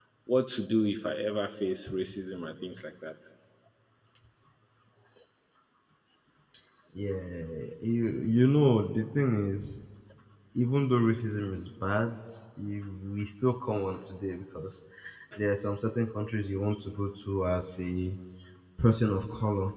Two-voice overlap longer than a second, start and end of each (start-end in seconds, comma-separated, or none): none